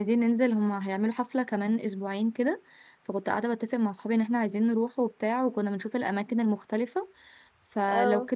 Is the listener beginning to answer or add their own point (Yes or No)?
No